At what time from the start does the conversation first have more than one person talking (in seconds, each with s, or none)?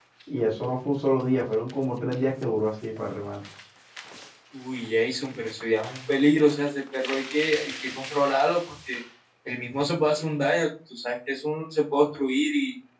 none